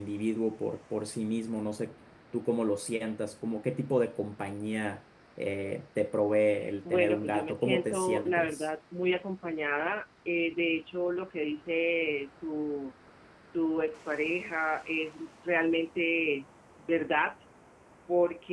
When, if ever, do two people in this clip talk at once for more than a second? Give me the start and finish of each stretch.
6.9-8.7

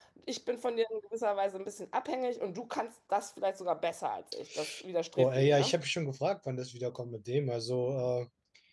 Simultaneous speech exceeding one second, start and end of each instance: none

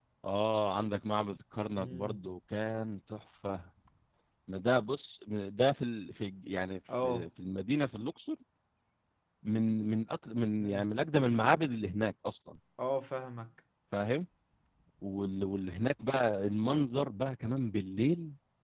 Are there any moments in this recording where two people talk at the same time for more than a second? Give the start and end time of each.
none

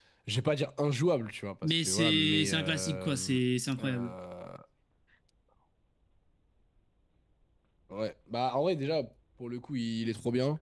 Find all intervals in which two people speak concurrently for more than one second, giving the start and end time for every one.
1.6-3.4

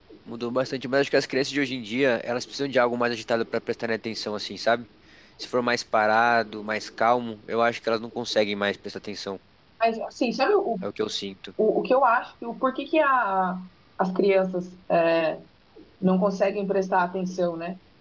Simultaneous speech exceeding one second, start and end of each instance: none

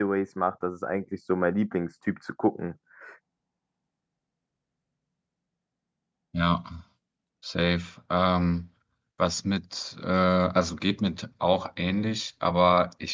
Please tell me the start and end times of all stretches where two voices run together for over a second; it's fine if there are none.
none

